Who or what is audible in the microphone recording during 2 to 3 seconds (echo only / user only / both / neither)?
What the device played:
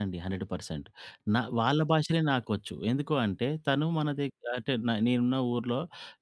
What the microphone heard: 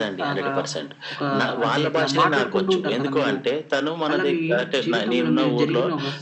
both